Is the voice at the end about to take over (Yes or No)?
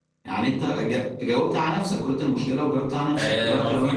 Yes